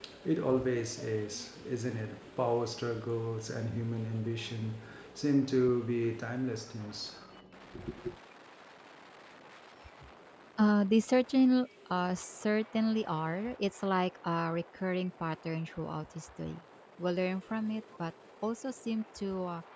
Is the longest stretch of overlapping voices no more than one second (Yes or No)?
Yes